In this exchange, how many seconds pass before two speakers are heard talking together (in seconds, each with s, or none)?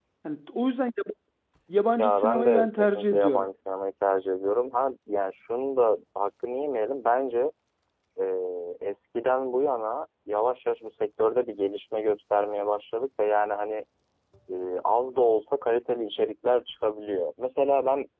2.0 s